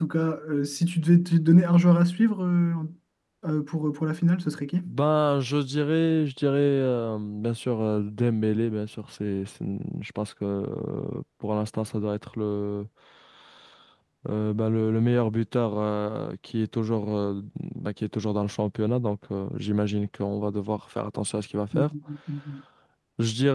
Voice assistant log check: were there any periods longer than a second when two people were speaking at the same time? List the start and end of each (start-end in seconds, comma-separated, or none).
none